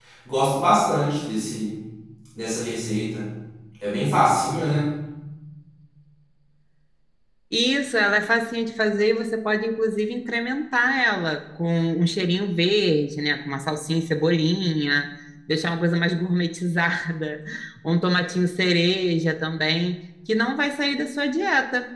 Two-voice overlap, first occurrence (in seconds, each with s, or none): none